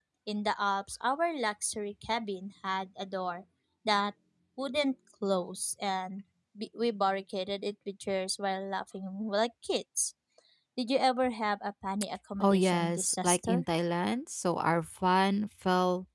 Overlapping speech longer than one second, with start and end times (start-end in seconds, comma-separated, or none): 12.4-13.6